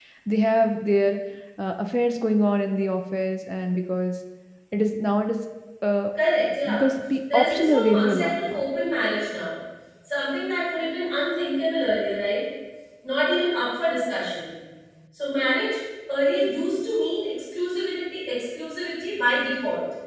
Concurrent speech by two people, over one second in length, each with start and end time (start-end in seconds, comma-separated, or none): 7.3-8.7